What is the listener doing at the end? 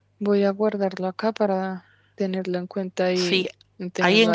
taking over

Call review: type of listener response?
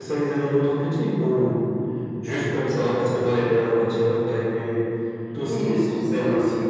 taking over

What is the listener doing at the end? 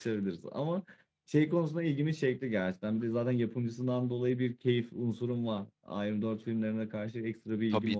taking over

